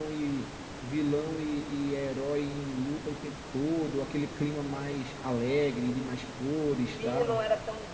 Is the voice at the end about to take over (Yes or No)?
Yes